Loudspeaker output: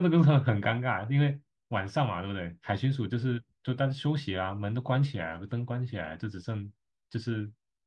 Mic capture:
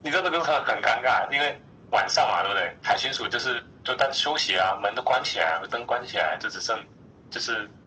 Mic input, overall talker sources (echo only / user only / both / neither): echo only